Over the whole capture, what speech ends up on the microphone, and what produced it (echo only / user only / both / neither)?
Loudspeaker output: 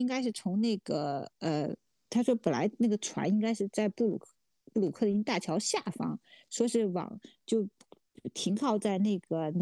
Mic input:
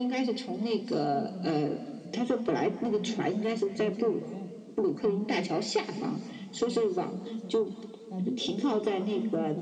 both